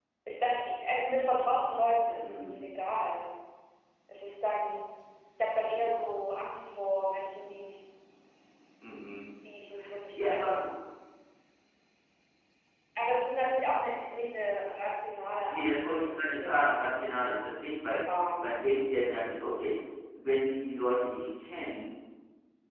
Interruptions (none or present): present